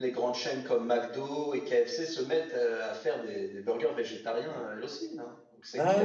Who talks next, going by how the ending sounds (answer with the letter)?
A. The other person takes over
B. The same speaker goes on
A